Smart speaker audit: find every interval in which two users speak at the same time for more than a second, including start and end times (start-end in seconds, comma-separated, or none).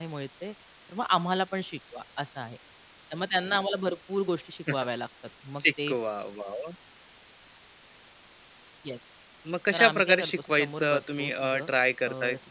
9.7-11.7